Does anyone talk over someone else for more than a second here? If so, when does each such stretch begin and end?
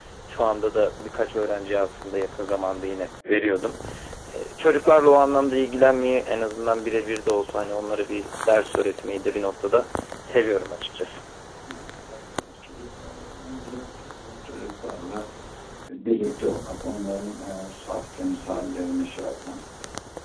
none

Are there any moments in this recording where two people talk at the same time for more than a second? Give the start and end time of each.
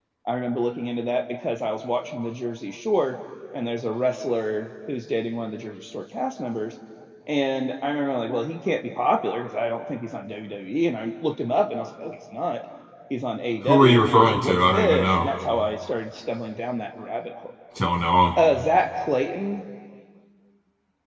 13.7-15.3

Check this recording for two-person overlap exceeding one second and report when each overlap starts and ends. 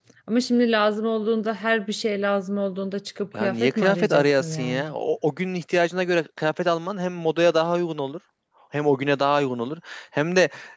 3.3-4.9

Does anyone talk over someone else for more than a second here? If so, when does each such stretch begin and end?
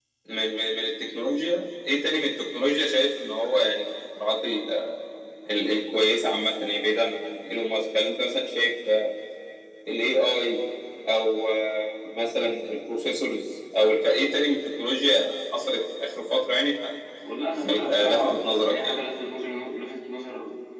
17.6-19.0

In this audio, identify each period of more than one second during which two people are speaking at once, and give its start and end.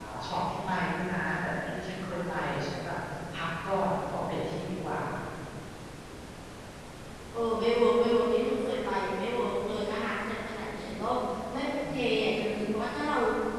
none

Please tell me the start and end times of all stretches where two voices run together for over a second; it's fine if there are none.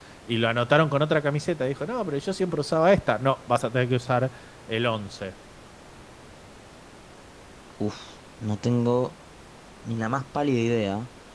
none

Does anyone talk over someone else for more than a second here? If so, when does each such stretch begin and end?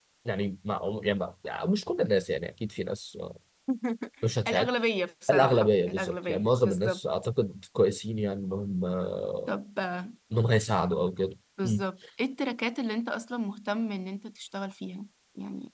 5.3-7.0

